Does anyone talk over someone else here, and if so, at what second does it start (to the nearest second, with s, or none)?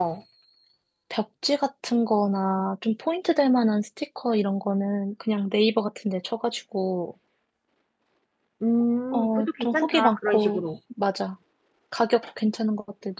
9 s